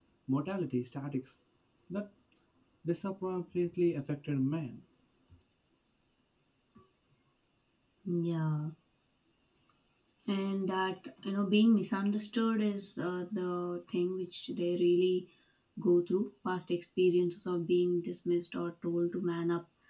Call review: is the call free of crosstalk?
Yes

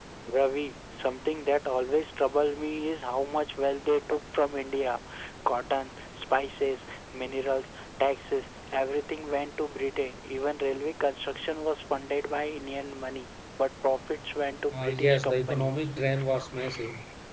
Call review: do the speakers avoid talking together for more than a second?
No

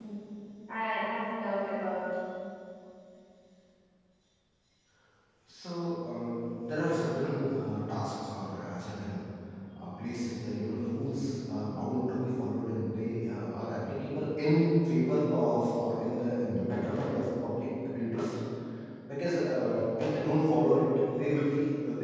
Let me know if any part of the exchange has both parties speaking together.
No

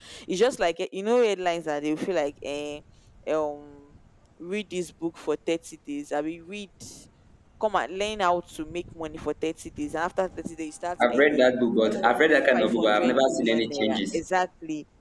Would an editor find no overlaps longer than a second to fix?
No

